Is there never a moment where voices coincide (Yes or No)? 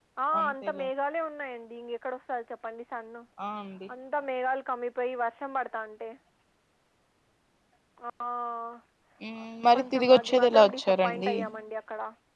No